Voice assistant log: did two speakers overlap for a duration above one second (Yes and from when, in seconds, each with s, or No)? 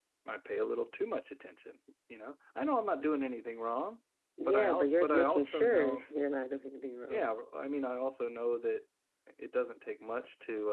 Yes, from 4.5 s